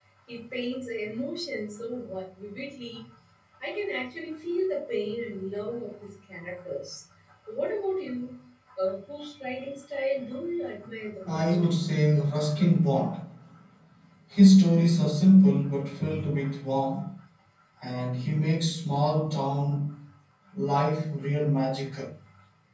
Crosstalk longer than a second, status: none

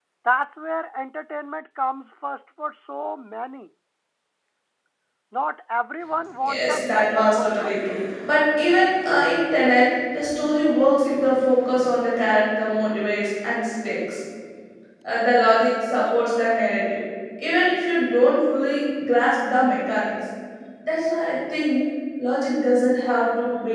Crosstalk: present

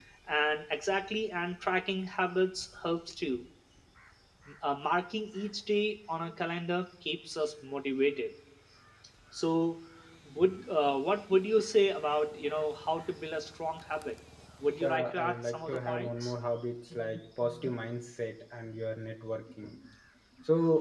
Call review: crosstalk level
present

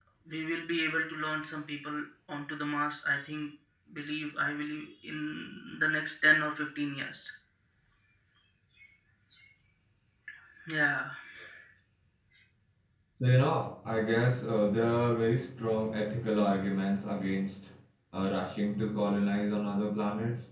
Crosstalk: none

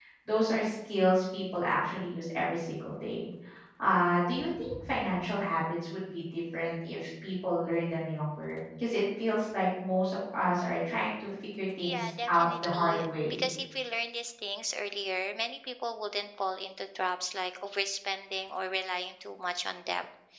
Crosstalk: present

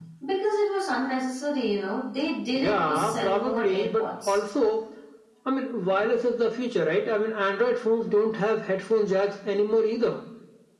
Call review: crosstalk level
present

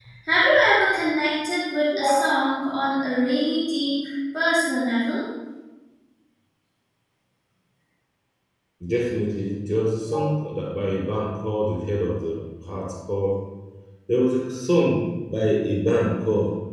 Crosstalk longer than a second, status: none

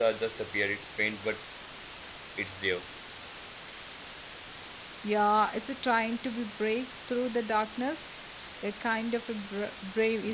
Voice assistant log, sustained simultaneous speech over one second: none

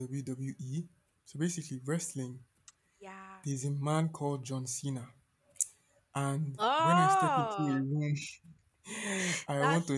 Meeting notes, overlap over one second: present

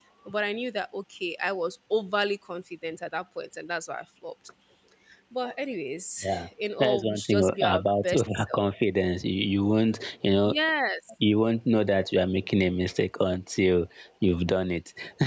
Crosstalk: present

